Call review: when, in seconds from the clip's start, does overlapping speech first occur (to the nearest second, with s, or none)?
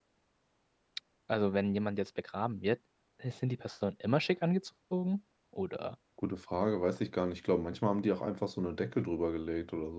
none